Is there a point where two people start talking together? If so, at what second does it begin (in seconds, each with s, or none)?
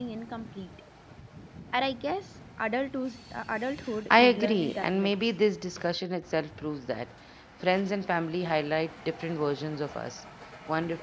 4.1 s